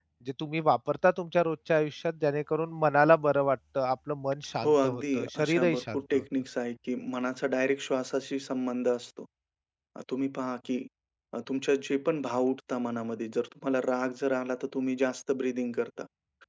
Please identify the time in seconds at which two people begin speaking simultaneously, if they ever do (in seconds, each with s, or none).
4.6 s